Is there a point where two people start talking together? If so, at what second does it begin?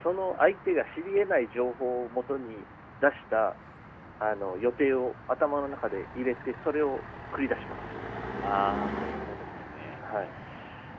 none

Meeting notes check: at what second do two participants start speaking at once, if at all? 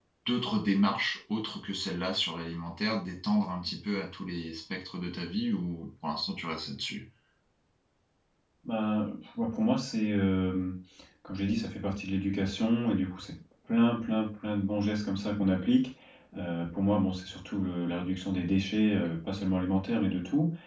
none

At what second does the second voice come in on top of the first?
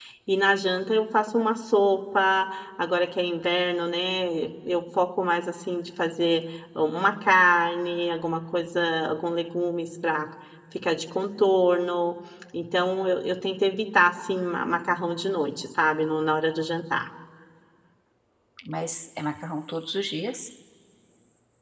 none

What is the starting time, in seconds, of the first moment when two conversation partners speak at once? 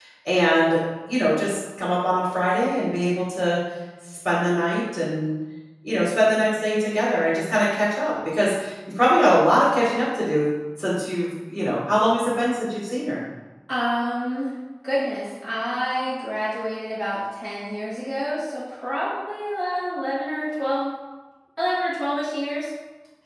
none

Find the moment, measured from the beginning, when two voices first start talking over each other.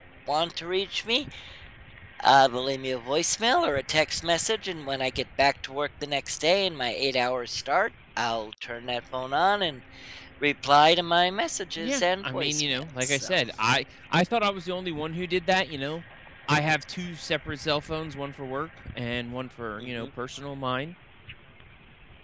11.8 s

